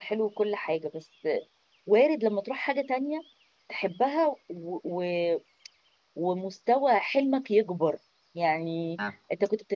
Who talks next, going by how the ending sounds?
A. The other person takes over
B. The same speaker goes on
B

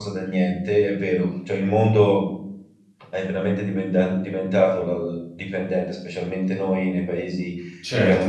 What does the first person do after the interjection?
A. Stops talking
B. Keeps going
A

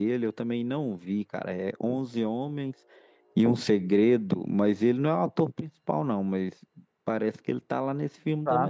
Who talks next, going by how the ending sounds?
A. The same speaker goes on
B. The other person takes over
B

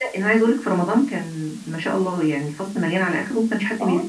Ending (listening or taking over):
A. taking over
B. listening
A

